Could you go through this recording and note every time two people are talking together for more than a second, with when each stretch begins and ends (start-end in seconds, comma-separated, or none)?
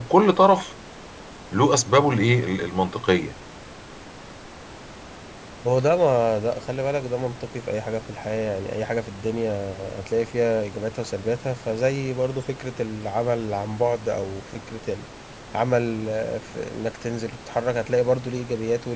none